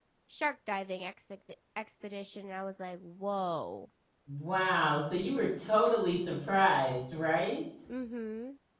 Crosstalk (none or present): none